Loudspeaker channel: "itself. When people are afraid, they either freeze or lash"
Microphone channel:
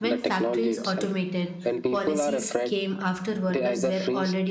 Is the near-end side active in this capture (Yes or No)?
Yes